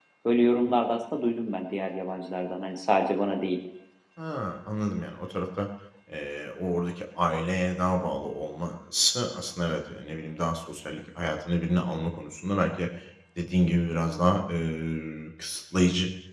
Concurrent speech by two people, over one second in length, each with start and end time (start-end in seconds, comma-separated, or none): none